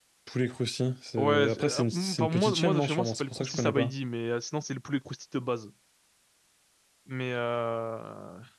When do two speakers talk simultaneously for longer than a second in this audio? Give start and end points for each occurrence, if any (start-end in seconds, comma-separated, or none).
1.2-3.9